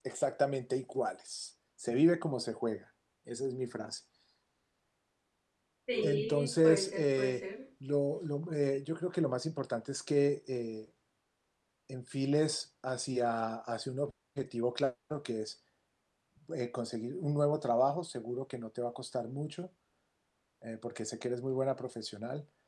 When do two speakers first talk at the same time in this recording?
6 s

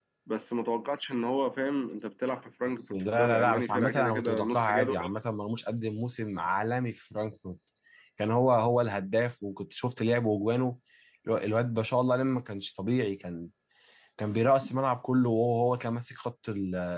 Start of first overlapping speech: 3 s

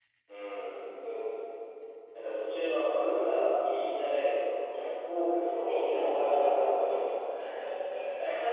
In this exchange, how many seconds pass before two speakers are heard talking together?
5 s

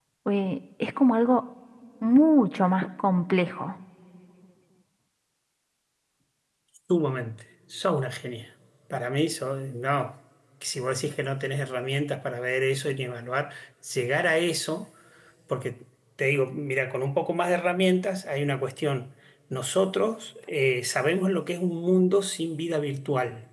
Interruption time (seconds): none

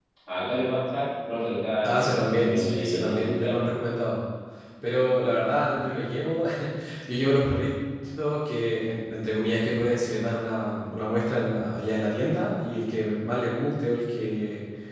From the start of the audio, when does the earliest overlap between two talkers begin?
2 s

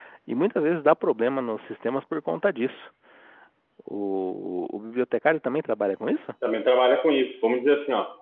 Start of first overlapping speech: none

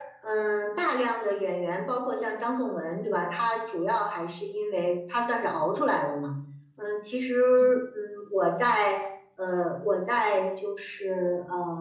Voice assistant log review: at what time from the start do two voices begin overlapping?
none

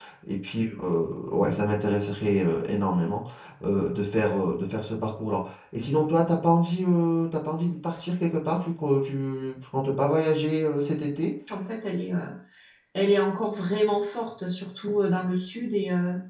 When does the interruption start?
none

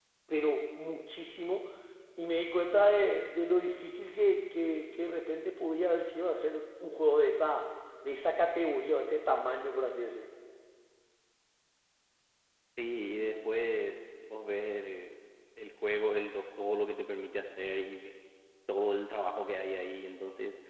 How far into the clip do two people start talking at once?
none

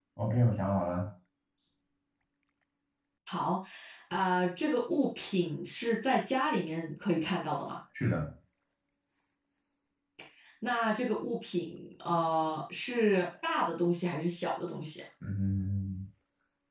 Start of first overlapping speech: none

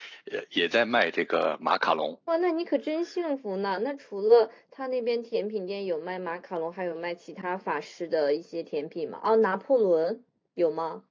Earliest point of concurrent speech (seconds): none

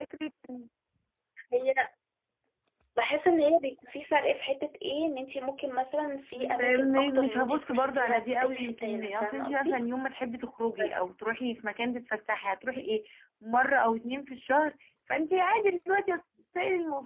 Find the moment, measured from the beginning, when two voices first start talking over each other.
6 s

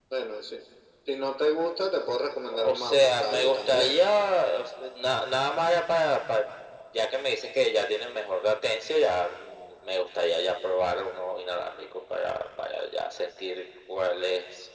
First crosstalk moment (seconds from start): 2 s

